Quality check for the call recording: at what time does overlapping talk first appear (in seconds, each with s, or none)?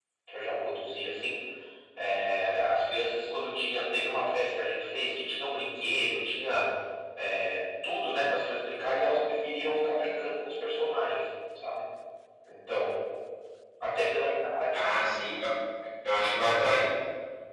none